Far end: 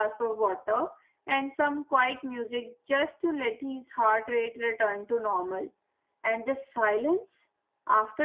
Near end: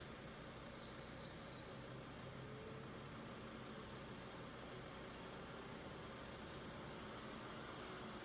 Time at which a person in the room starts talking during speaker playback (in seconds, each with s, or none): none